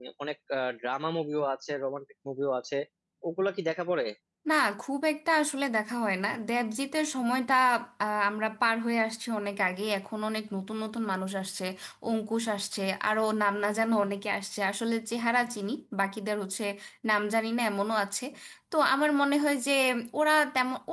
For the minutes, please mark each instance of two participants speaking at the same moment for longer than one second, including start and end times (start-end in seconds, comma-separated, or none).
none